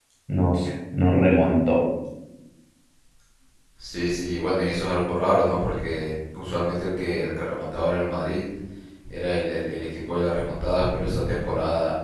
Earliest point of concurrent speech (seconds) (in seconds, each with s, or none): none